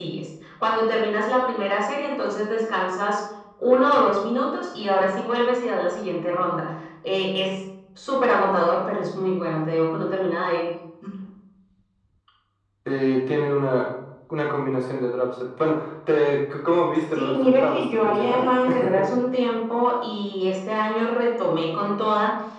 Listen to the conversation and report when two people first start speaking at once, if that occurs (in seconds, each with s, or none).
17.1 s